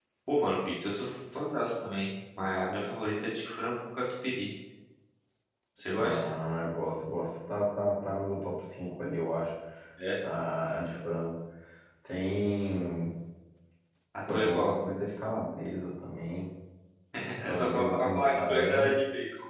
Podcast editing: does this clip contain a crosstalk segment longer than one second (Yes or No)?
Yes